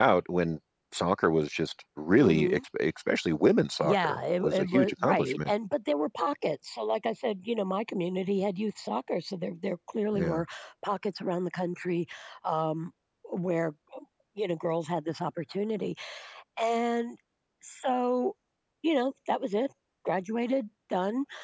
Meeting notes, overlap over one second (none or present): present